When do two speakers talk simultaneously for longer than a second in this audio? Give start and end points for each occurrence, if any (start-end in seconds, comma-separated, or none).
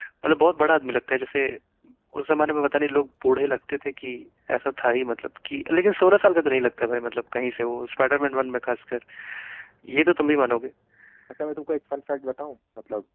none